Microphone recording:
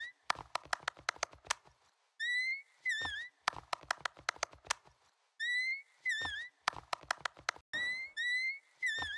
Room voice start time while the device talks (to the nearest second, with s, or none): none